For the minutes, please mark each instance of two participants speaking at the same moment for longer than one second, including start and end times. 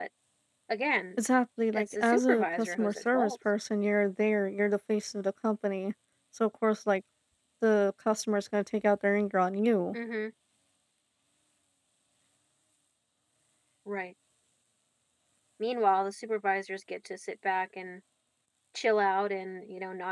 1.7-3.3

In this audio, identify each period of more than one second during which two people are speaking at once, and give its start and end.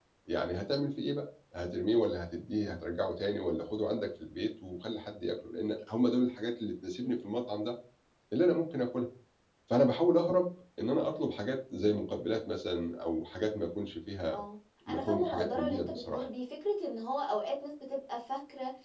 14.9-16.2

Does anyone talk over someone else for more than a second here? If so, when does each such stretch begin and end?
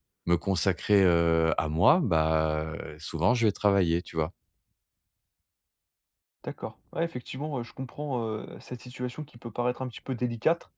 none

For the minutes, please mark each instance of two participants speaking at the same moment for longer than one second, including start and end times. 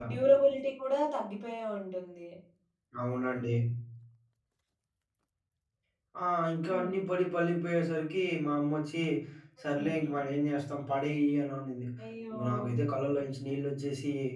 none

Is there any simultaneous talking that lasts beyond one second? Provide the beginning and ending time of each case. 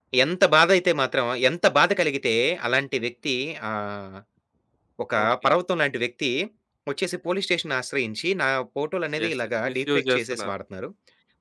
9.2-10.5

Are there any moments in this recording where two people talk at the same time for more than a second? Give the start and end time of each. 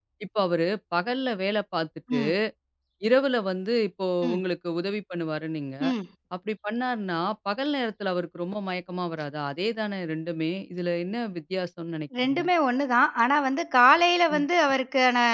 none

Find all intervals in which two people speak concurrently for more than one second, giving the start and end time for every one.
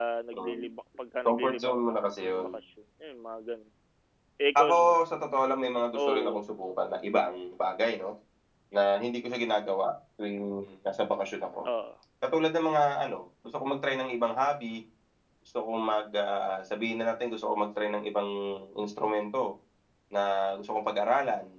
1.2-2.5

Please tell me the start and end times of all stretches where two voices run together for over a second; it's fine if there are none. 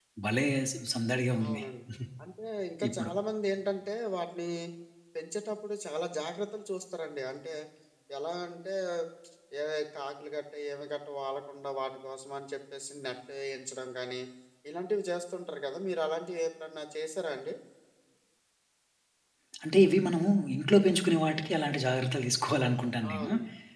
none

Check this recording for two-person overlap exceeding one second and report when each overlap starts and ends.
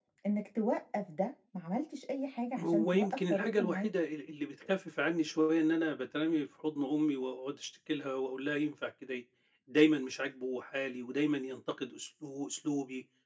2.6-3.9

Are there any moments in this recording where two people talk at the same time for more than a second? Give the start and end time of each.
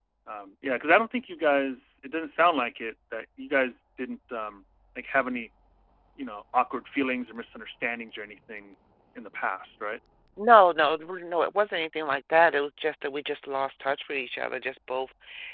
none

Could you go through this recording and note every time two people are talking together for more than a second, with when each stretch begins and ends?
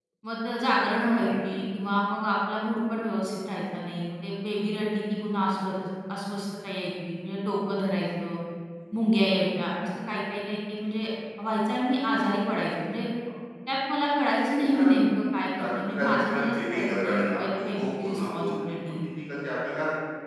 15.6-18.9

